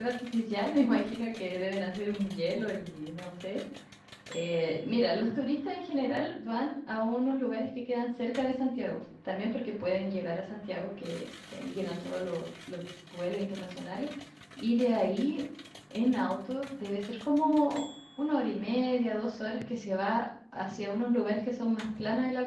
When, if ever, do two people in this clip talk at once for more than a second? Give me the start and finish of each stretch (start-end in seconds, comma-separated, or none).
none